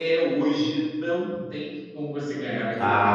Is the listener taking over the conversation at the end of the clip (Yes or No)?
Yes